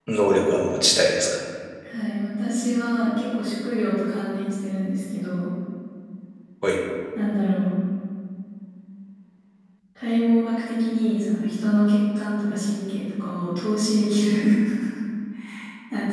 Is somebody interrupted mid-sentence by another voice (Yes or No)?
No